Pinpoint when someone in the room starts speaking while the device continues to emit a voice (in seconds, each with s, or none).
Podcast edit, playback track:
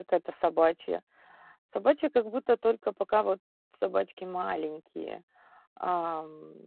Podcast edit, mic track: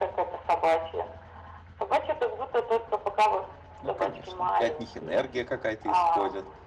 3.8 s